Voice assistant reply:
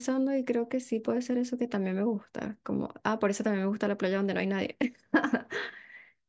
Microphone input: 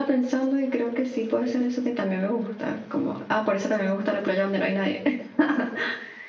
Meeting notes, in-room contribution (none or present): none